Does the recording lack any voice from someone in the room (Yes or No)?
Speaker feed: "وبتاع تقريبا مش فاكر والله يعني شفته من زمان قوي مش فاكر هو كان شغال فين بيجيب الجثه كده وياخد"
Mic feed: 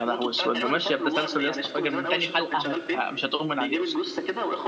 No